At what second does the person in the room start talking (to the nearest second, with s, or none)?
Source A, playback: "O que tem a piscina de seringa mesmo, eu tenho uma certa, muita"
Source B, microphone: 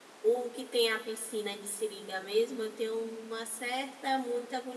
none